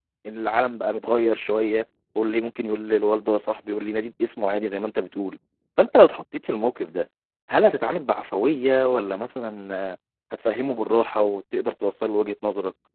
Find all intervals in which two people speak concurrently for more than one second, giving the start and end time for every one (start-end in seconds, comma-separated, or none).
none